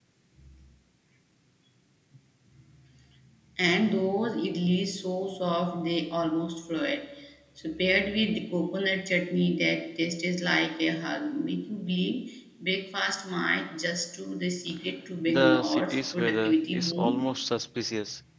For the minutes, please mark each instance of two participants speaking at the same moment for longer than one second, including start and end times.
15.3-17.1

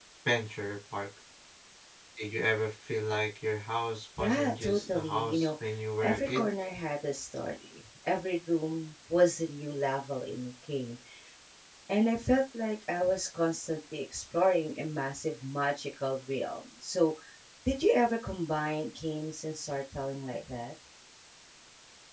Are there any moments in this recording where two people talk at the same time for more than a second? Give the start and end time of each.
4.2-5.5

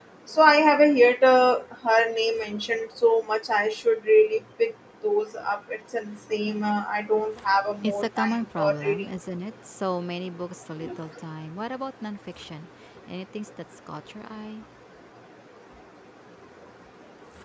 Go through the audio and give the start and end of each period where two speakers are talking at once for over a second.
7.8-9.1

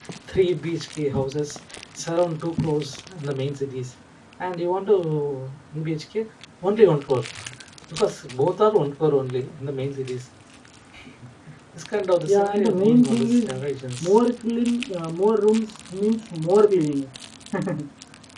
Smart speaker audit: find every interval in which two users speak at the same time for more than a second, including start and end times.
12.3-13.6

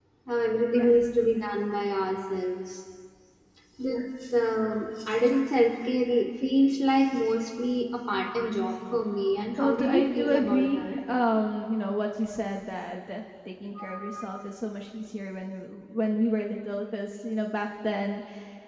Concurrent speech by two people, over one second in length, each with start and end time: 9.6-10.9

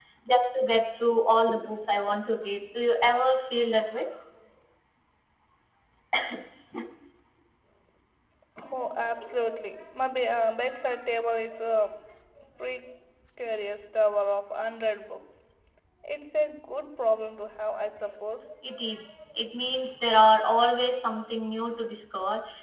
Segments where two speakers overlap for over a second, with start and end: none

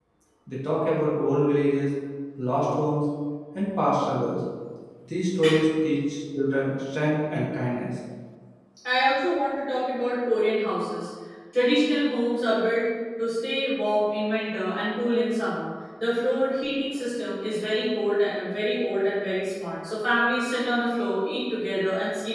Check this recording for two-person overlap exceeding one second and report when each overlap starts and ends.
none

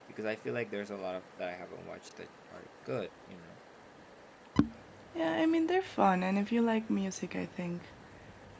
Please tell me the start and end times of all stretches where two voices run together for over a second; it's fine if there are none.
none

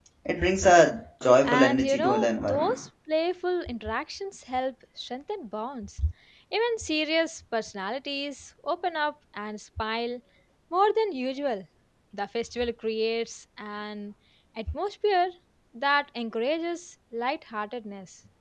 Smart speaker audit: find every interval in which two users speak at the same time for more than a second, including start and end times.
1.4-2.8

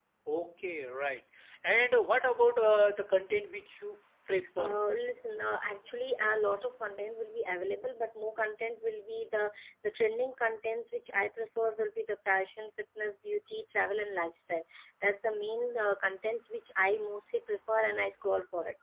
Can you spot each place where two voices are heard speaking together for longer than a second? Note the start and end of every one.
none

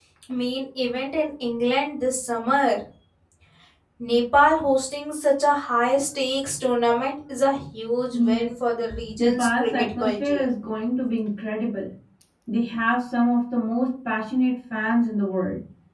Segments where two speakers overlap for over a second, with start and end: 9.2-10.4

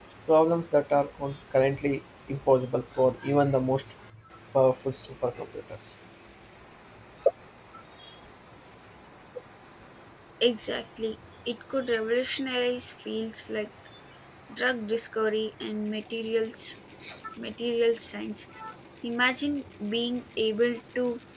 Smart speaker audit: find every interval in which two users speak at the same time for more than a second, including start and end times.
none

